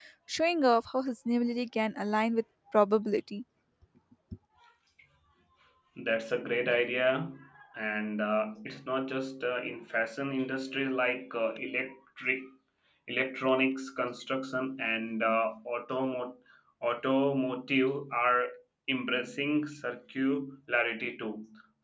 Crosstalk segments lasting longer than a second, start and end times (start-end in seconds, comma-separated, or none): none